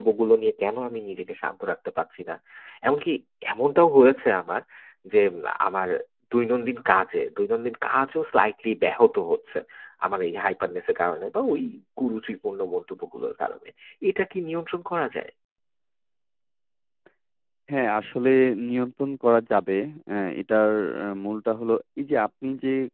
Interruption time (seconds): none

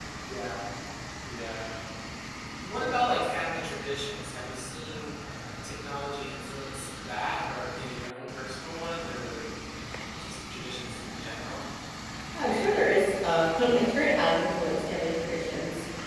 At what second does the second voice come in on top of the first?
none

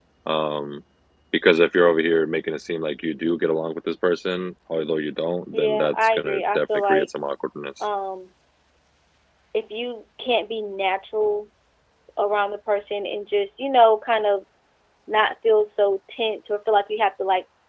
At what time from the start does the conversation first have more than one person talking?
6 s

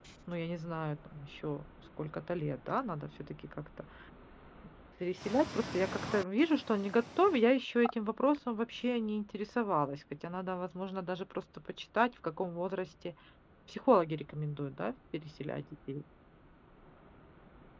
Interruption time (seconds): none

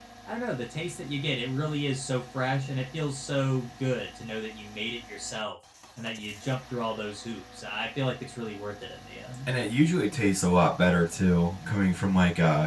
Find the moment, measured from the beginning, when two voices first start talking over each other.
none

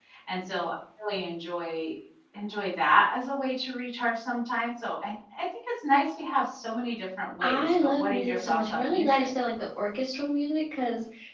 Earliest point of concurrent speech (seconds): 7 s

